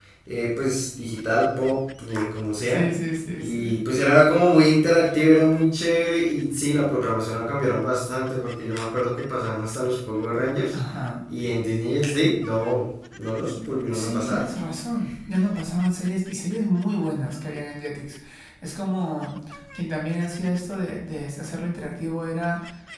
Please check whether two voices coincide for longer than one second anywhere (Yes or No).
No